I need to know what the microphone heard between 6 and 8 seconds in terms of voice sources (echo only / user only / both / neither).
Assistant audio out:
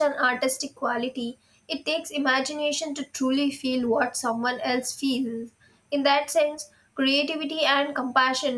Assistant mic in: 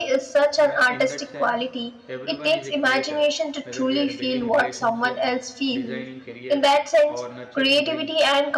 both